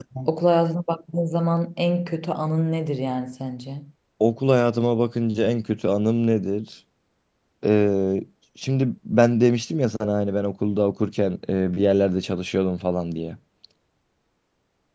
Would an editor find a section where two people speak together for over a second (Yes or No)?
No